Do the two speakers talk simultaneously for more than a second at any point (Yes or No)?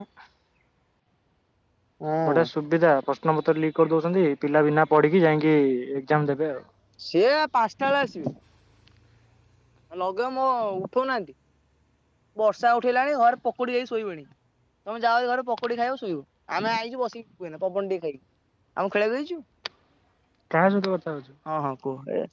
No